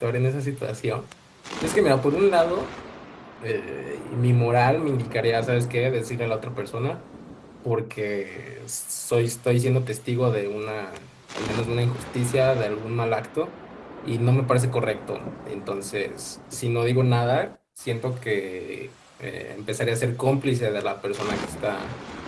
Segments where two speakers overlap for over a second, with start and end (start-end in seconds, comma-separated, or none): none